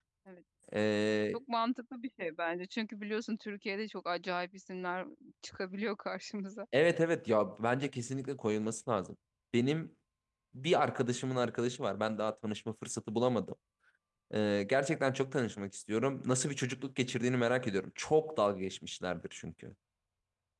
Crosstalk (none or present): none